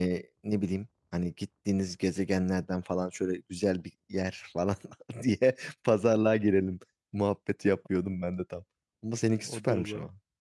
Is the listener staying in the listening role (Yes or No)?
No